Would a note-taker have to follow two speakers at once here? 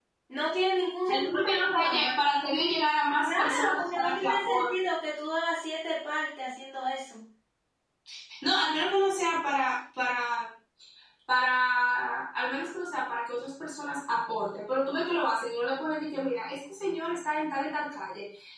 Yes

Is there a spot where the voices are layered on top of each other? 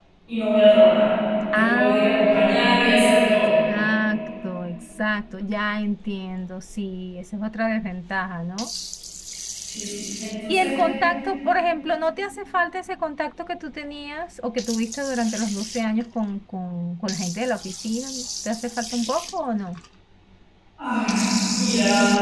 Yes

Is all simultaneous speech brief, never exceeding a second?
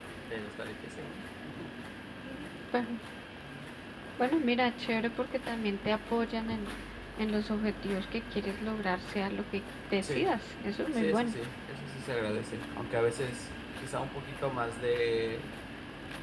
Yes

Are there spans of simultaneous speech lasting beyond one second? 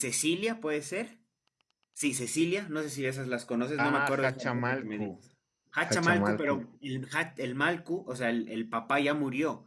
Yes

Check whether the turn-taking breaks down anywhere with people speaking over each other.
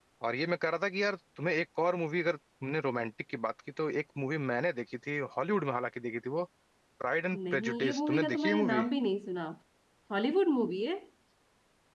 Yes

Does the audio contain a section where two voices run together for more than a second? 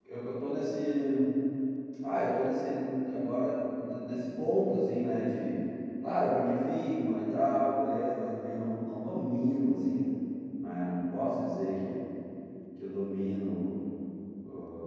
No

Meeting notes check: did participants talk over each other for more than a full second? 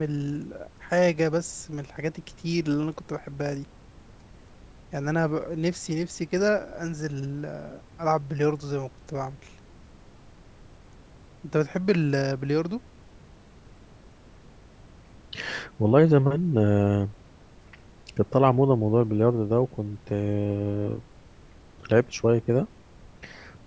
No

